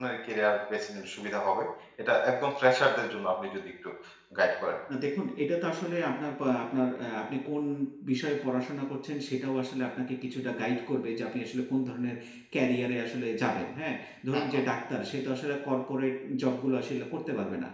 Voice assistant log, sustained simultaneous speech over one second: none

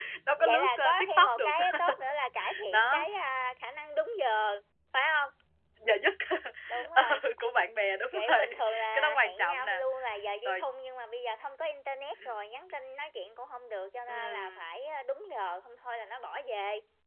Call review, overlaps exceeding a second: present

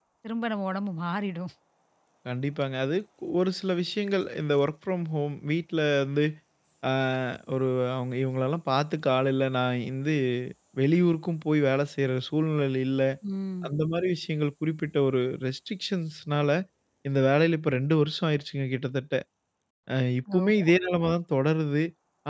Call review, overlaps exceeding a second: none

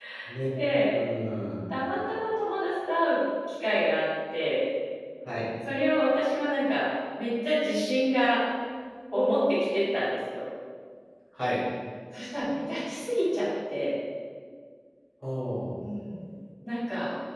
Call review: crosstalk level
none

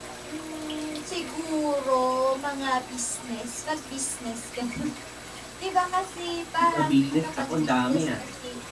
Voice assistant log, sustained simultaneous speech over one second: present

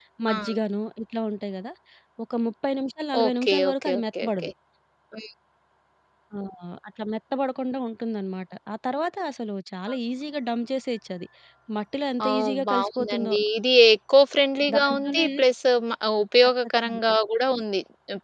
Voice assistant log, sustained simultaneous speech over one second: present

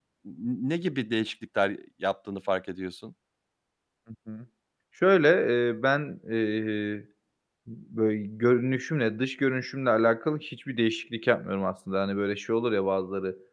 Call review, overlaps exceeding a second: none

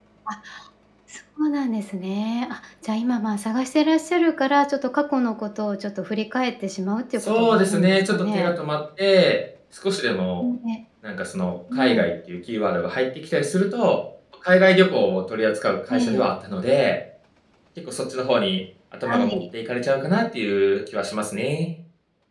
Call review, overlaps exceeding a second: present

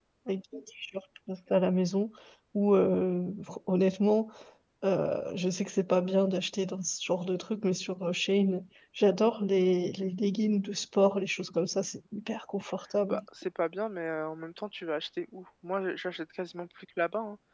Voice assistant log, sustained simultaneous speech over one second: none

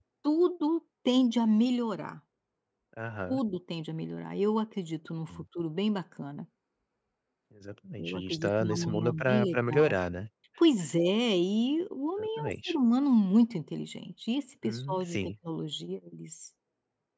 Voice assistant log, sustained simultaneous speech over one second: present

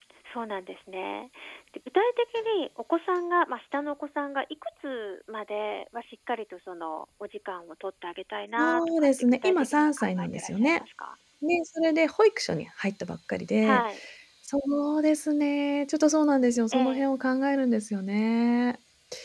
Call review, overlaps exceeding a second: present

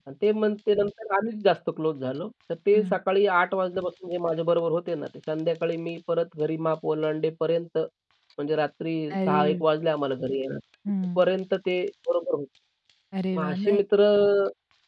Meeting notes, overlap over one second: none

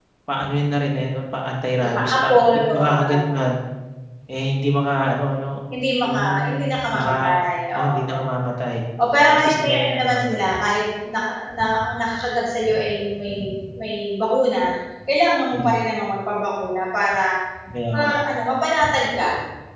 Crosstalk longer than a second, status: present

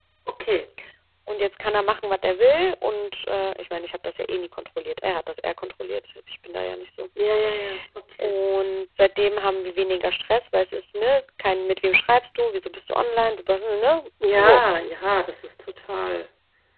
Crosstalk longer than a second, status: none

